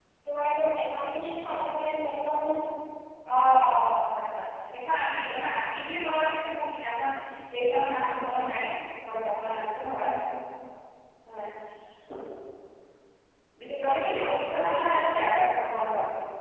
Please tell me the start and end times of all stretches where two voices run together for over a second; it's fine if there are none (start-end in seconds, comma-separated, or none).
13.7-15.4